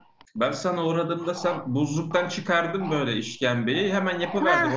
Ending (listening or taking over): taking over